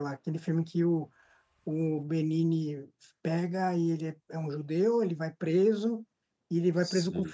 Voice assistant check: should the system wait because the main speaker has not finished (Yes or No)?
Yes